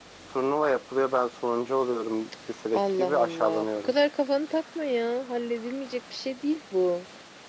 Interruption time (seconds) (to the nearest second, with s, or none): 3 s